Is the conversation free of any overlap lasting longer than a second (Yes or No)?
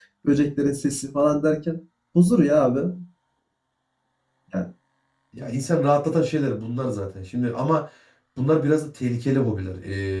Yes